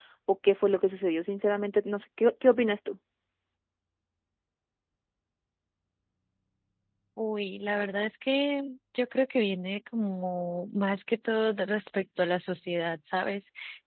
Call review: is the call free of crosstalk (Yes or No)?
Yes